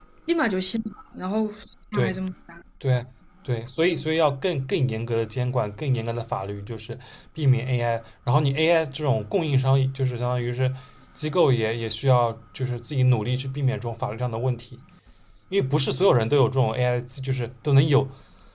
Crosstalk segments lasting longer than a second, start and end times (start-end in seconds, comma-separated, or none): none